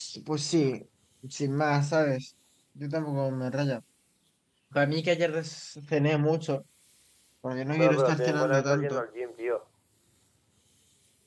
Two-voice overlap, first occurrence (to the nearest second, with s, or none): 8 s